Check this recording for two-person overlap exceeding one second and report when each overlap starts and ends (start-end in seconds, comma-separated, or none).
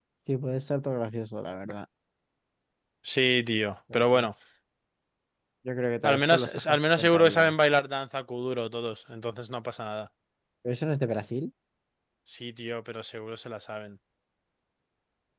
6.0-7.5